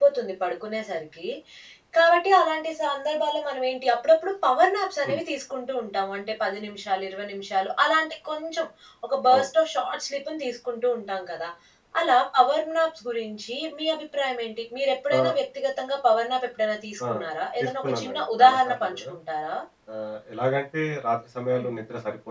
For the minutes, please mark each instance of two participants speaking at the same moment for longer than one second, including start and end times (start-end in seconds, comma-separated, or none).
17.6-19.0